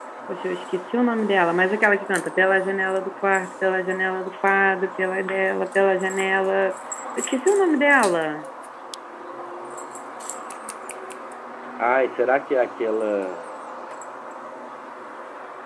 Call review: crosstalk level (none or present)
none